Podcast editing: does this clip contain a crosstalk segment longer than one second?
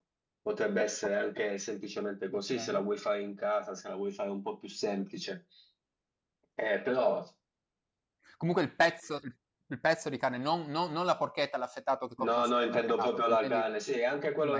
Yes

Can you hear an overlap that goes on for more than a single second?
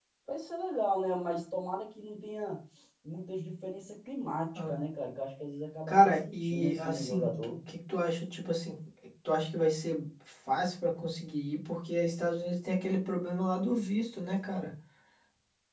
Yes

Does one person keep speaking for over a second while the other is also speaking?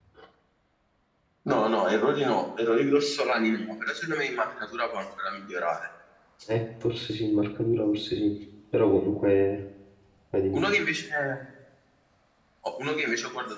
No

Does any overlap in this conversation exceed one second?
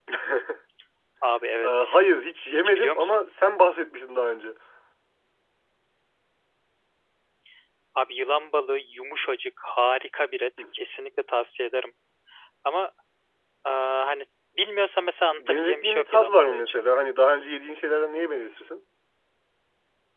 Yes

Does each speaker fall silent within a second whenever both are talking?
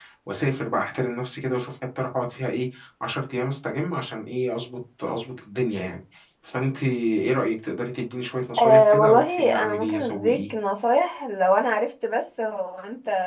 No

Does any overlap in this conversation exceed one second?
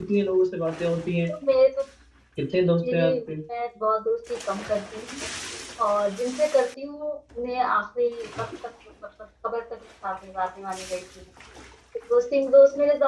No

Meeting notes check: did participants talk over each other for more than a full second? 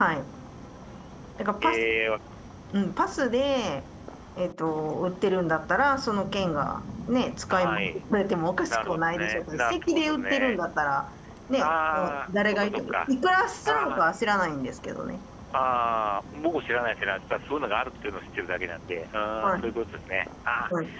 Yes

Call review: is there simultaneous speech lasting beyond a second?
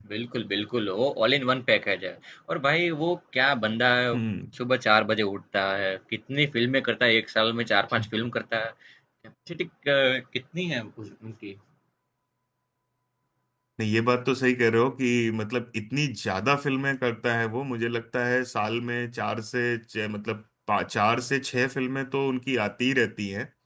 No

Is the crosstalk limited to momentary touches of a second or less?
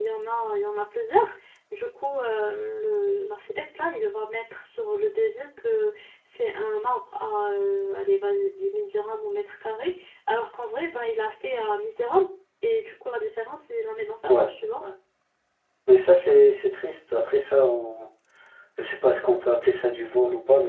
Yes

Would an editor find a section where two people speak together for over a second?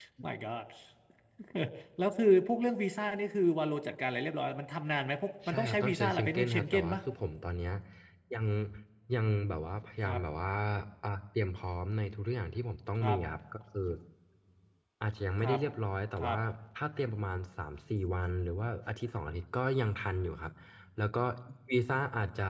Yes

